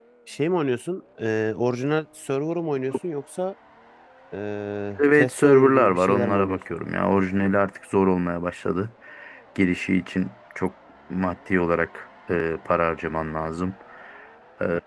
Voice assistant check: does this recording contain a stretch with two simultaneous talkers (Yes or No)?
Yes